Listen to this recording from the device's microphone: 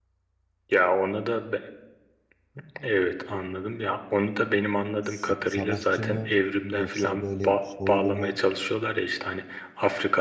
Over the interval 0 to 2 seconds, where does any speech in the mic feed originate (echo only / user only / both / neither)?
echo only